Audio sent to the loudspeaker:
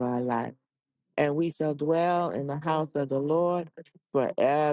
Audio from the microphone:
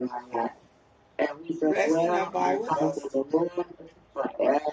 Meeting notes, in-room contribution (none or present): present